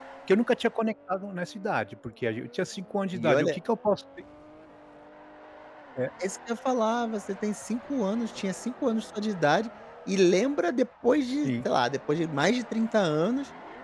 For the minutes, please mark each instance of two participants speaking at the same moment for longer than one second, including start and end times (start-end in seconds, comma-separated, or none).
none